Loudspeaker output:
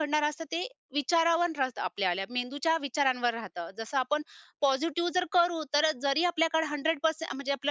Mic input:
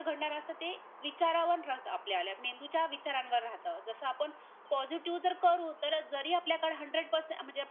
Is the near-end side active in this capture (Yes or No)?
No